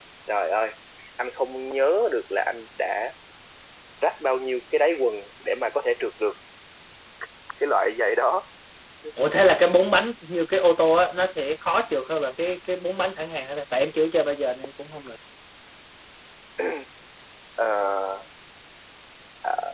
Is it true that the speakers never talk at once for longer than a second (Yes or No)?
Yes